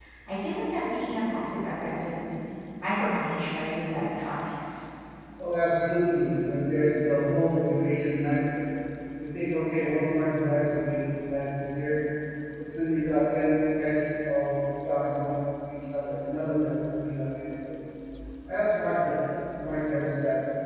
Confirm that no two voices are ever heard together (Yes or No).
Yes